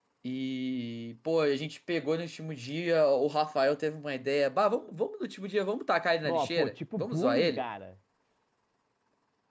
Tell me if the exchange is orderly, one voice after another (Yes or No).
No